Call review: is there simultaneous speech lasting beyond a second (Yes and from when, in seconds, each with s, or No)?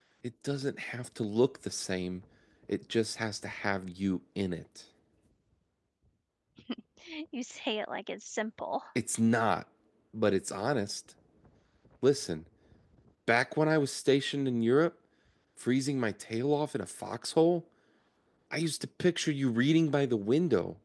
No